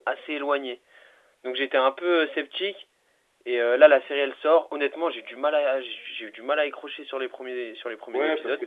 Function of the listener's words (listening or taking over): taking over